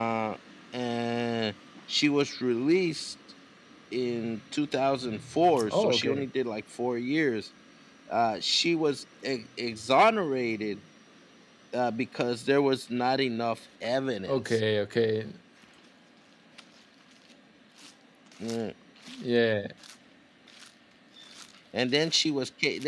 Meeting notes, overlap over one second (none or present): none